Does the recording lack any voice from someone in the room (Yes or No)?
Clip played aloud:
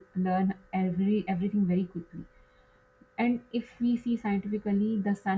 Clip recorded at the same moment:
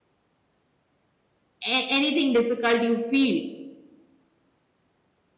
No